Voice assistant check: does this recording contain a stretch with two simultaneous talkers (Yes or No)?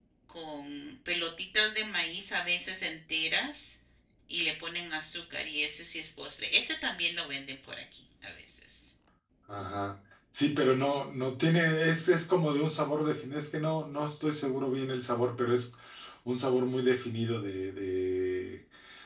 No